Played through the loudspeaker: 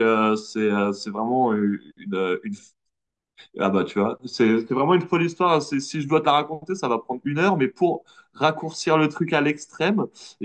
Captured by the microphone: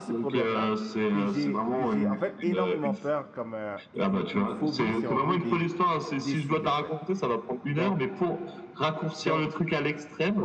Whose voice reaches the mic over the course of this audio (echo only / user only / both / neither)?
both